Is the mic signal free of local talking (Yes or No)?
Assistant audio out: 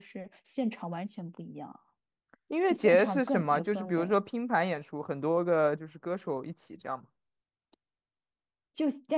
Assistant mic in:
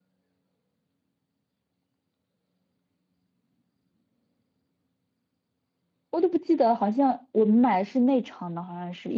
No